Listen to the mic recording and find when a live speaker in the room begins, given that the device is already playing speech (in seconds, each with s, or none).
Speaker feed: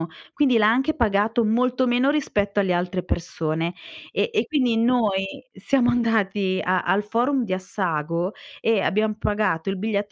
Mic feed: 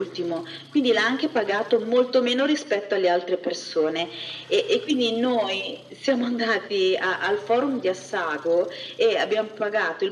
none